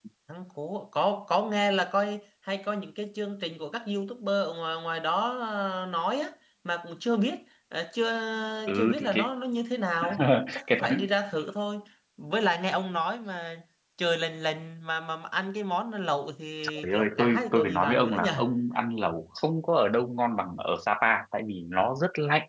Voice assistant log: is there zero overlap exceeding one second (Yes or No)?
No